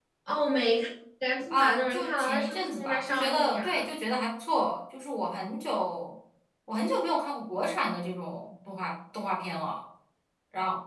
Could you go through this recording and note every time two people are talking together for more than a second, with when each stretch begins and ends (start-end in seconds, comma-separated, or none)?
1.5-3.9